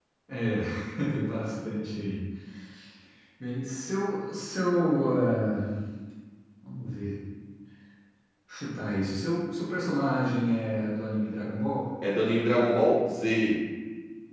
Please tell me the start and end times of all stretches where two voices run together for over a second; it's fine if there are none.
none

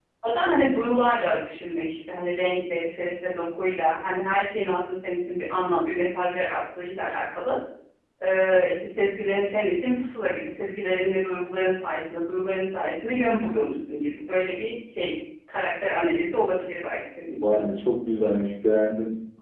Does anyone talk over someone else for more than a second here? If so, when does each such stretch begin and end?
none

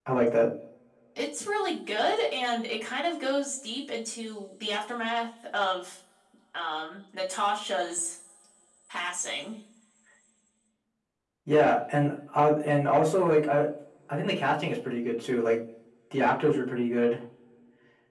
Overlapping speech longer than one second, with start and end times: none

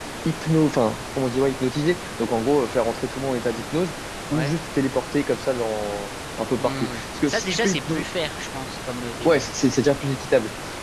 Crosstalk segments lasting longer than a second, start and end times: 6.6-8.0

